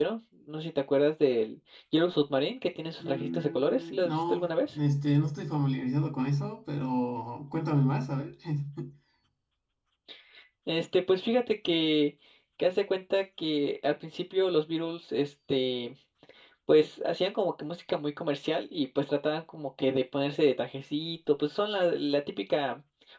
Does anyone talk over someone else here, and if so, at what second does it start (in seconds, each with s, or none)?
3.0 s